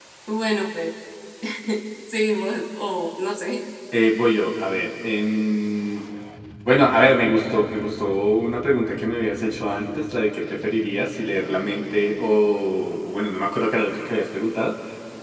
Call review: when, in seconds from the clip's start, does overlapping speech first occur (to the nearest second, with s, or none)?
none